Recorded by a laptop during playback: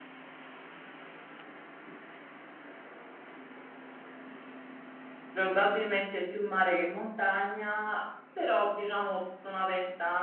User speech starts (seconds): 5 s

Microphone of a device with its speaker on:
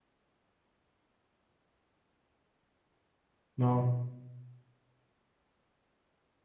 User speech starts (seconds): 4 s

